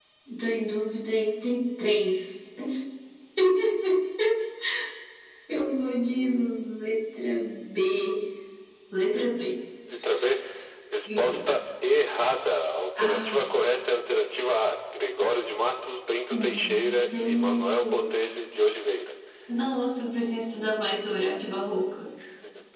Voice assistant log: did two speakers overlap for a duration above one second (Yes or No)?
Yes